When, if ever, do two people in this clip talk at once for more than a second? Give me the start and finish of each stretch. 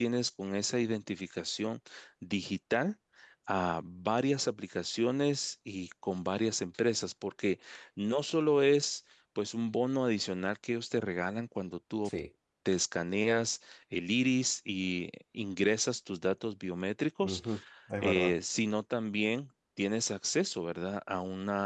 none

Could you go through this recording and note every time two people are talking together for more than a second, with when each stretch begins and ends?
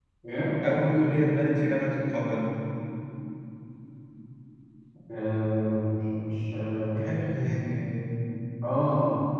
none

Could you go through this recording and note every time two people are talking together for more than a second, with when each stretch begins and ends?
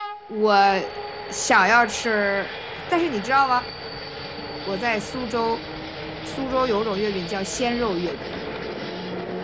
none

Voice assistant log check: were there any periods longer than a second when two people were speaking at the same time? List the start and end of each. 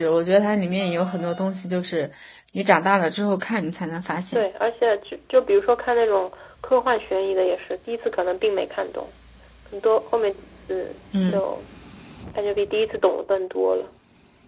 none

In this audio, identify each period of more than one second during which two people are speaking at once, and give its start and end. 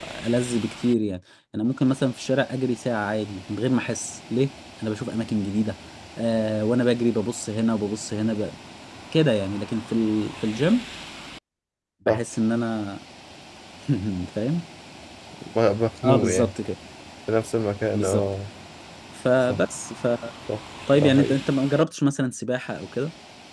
none

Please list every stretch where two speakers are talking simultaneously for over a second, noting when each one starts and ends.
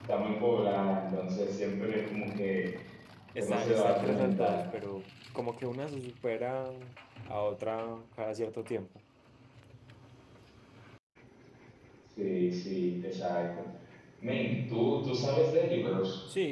3.4-4.6

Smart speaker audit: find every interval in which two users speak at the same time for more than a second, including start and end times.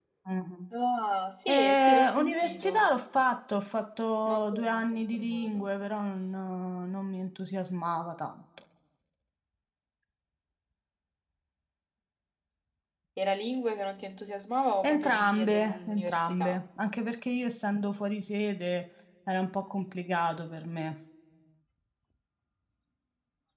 1.5-2.8, 4.3-5.7, 14.8-16.6

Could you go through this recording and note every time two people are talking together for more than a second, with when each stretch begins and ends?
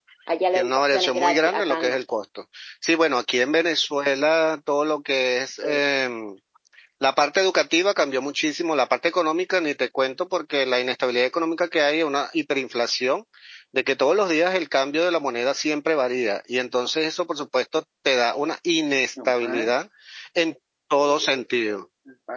0.6-2.0

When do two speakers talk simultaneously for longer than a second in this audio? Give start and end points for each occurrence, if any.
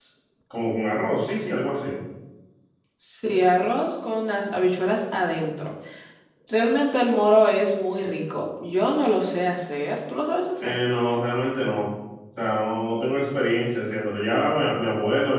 none

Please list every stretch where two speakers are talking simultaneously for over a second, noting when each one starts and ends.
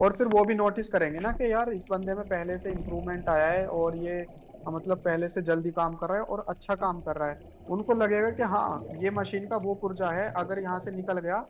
none

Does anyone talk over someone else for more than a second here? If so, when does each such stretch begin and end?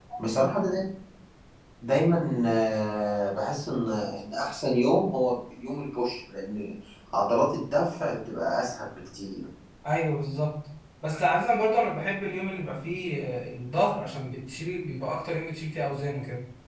none

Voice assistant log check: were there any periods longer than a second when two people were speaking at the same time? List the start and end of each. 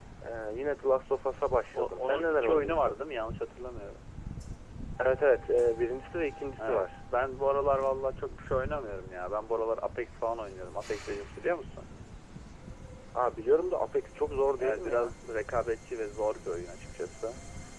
1.7-3.0

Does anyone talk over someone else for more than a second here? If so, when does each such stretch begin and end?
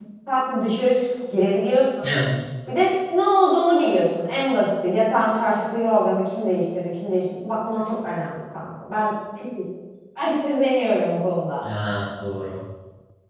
none

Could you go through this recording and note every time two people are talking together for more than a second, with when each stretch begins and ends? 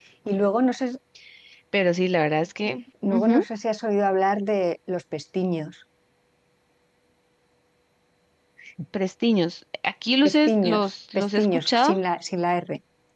10.2-12.0

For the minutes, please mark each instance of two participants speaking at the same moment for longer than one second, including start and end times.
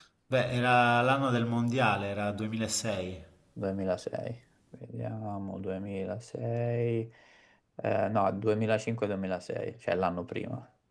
none

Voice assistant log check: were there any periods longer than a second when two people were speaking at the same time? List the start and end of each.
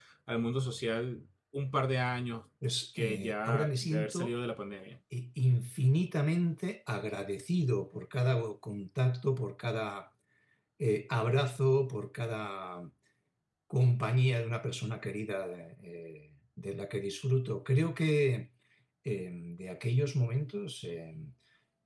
3.0-4.3

